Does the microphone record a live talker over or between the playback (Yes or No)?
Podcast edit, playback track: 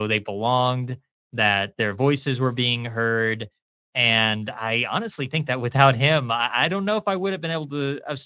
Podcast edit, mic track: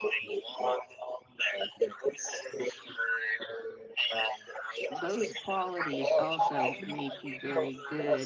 Yes